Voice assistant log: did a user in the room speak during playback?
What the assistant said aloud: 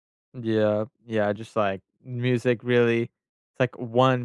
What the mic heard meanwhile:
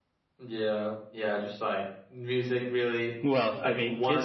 Yes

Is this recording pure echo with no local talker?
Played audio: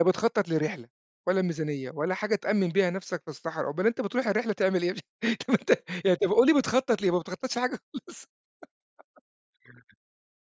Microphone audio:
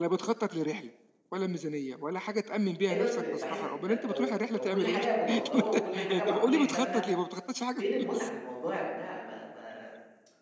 No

